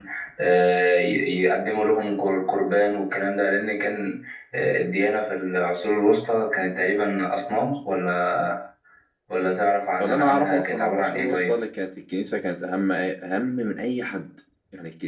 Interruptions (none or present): present